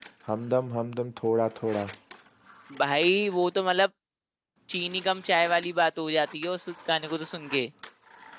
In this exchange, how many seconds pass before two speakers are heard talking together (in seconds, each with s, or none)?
none